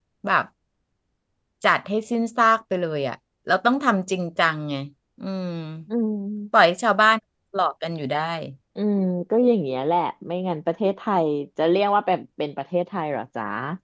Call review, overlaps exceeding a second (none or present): none